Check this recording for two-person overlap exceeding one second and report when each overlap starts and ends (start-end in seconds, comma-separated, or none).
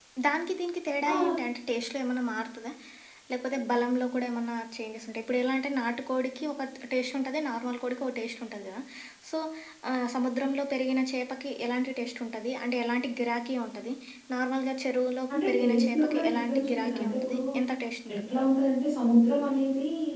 15.5-17.4